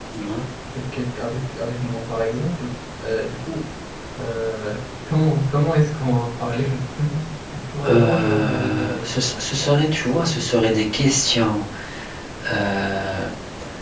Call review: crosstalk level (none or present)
present